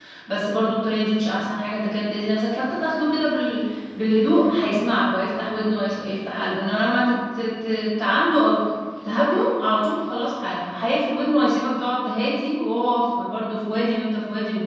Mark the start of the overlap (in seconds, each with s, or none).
none